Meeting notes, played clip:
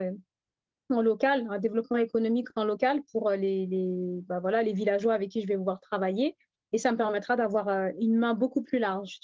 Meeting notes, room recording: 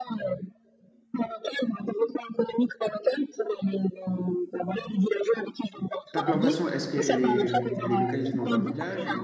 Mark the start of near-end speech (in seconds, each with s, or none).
6.1 s